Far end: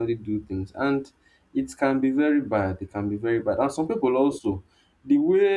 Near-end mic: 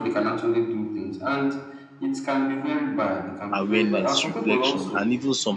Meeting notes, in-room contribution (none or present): present